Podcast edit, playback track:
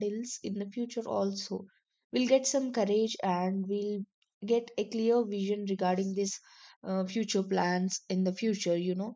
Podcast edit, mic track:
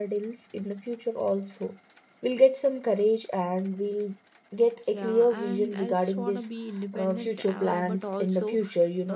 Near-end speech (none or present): present